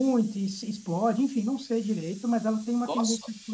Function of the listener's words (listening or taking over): listening